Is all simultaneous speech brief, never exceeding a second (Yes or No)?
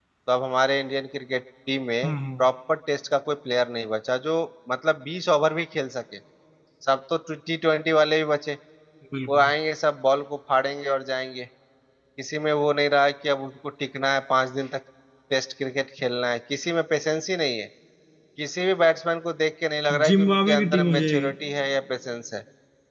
No